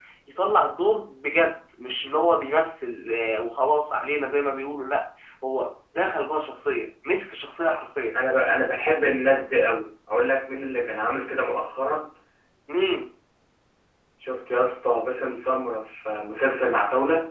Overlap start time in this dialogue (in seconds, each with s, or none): none